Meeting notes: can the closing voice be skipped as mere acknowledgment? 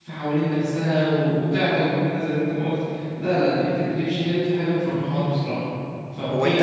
No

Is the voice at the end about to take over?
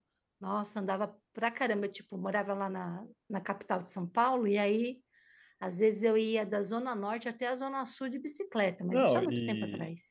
Yes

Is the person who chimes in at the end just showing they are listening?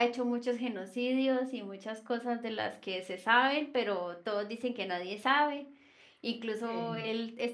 Yes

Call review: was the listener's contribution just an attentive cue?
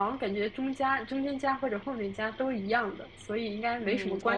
No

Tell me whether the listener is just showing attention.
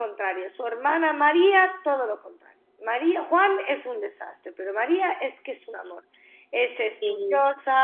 Yes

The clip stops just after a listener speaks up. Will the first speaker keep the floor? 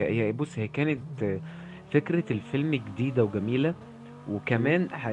Yes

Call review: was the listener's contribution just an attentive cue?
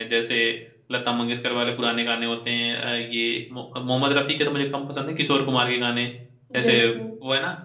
Yes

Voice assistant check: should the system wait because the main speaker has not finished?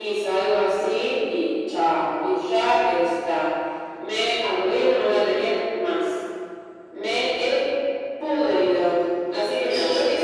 No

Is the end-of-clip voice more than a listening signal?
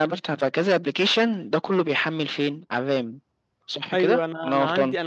Yes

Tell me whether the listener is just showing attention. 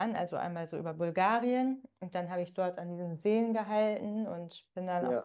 Yes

